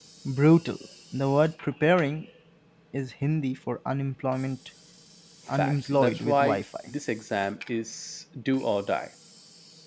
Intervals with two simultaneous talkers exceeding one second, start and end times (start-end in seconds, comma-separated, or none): 5.5-6.9